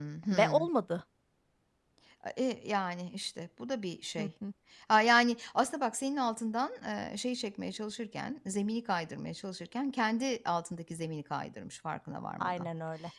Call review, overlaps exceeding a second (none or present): none